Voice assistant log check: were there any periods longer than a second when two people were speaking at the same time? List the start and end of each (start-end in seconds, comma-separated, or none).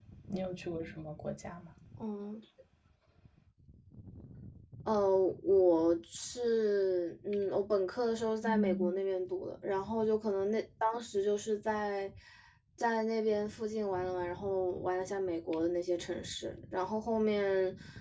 none